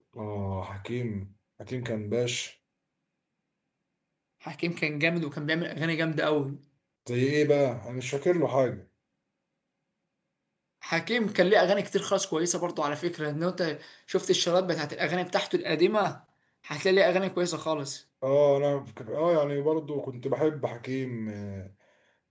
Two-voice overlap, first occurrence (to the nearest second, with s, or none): none